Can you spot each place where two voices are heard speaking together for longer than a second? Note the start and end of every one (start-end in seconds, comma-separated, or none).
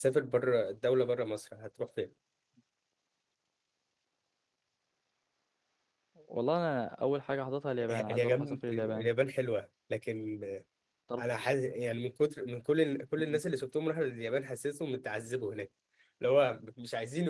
7.9-9.1